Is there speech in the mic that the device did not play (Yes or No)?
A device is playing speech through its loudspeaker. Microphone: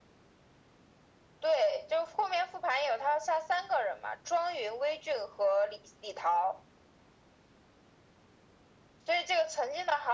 No